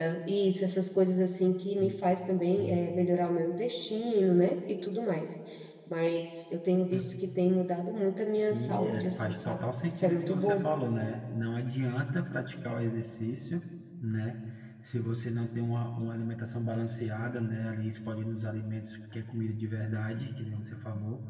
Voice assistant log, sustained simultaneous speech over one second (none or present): present